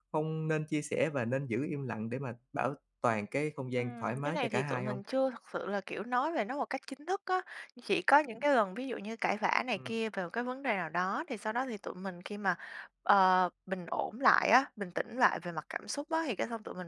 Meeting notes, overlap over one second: present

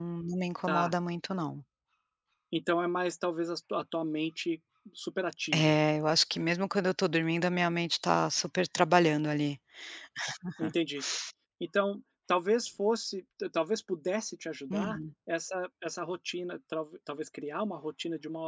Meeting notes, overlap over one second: none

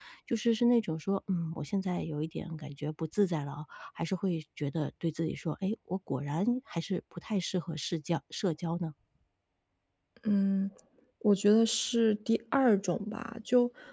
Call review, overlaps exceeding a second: none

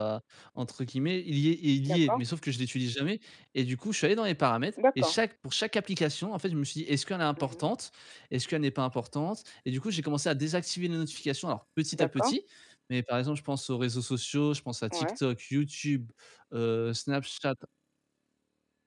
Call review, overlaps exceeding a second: none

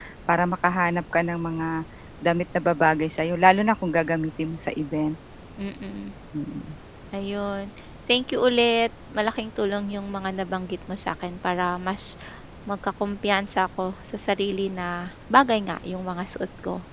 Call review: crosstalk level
none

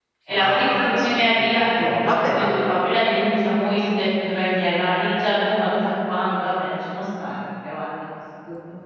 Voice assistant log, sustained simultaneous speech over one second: present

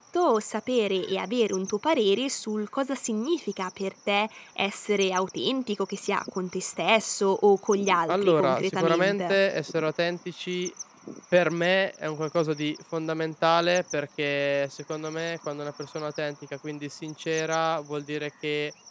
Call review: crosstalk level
present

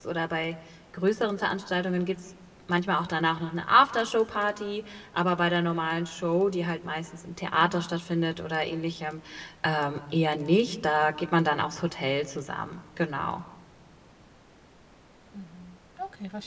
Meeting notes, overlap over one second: none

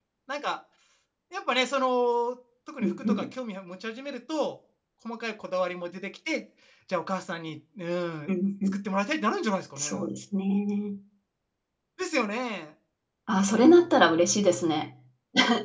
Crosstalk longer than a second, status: none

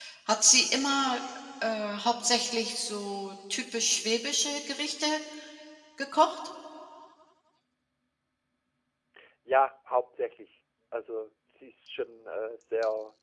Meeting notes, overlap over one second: none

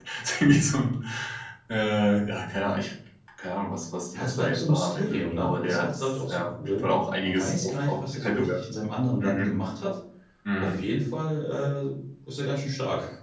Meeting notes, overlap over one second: present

